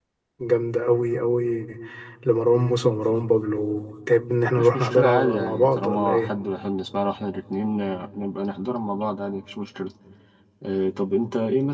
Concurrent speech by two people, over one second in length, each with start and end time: 4.6-6.3

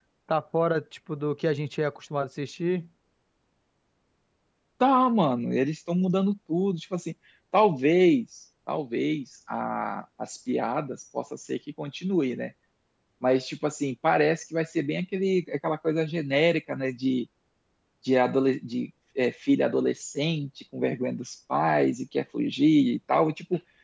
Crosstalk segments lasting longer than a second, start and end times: none

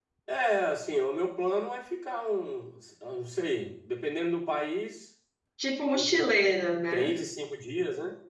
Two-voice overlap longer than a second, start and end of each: none

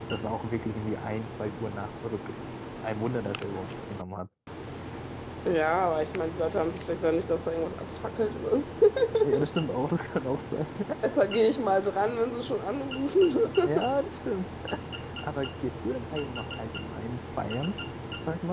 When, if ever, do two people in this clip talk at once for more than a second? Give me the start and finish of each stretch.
none

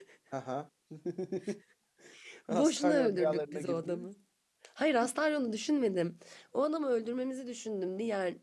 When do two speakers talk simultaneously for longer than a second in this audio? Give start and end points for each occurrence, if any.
2.5-4.1

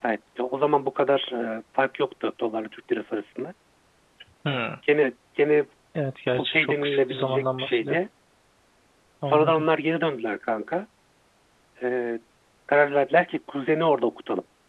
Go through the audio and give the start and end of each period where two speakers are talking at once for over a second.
6.4-8.0

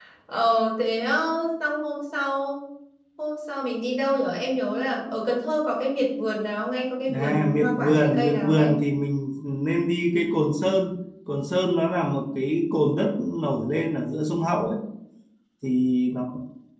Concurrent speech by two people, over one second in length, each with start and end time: 7.1-8.7

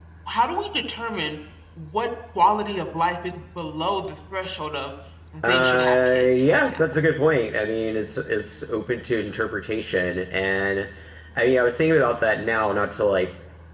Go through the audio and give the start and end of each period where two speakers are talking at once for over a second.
5.4-6.8

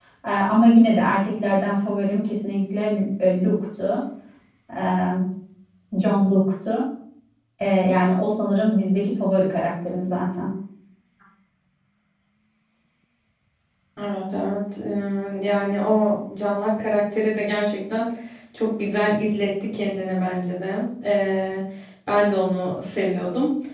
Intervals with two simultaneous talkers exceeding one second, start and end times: none

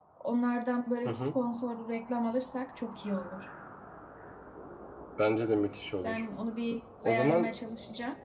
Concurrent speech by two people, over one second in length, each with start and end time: none

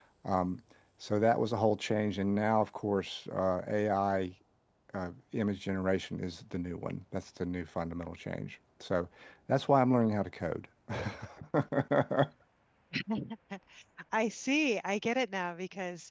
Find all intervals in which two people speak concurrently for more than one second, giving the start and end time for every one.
none

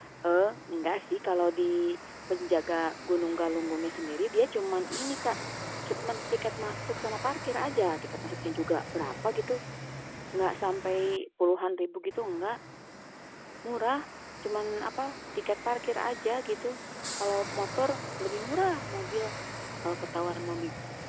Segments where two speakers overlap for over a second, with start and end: none

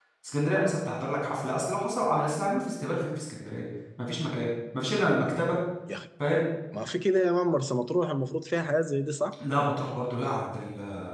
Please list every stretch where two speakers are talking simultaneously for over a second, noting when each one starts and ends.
none

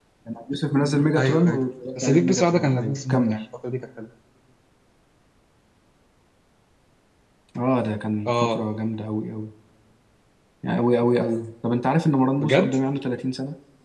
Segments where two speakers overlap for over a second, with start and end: 2.0-3.4

